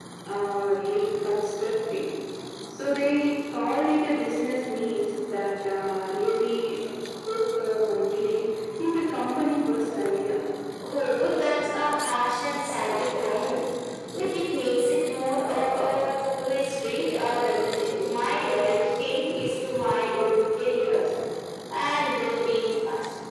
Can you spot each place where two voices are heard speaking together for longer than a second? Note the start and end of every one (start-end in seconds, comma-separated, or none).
none